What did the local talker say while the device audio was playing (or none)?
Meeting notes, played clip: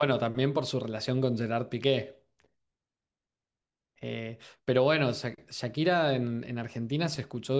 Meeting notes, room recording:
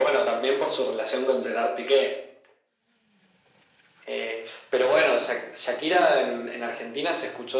none